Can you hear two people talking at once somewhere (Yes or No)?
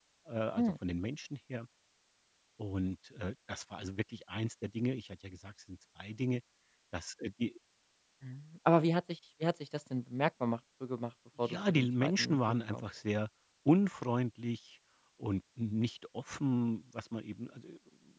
Yes